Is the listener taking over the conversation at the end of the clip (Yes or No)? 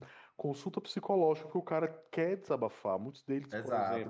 Yes